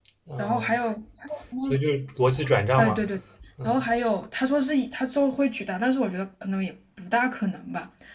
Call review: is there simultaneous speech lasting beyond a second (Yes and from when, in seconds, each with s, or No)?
No